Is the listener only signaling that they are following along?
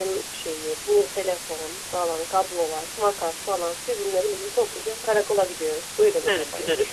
No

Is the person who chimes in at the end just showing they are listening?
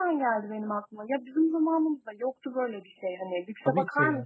Yes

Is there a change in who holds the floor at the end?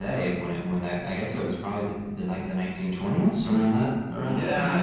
Yes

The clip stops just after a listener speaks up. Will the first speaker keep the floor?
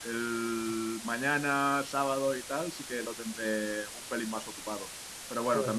Yes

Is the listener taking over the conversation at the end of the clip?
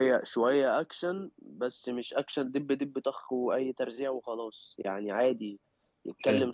No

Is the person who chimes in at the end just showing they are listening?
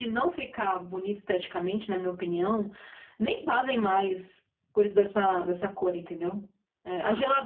Yes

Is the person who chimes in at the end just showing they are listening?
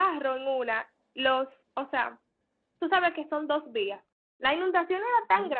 Yes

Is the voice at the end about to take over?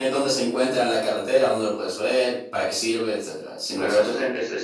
Yes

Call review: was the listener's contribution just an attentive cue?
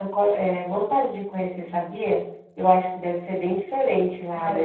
No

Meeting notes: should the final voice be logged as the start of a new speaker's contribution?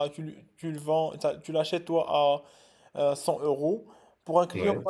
No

